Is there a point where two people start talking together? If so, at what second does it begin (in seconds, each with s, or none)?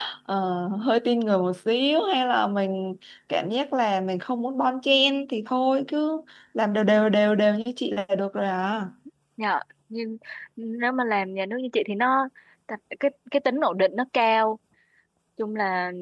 none